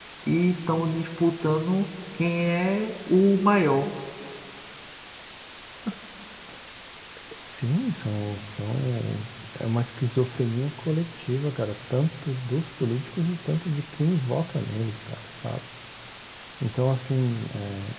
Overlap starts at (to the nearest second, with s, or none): none